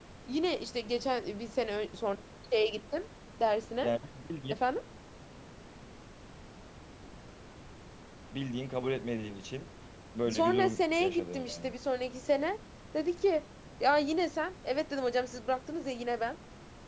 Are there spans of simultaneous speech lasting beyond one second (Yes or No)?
Yes